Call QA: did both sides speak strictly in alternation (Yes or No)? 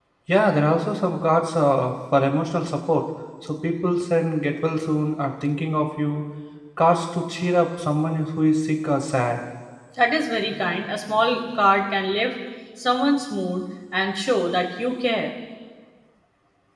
Yes